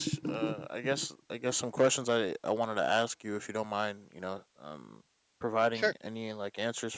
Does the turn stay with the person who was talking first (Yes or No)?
Yes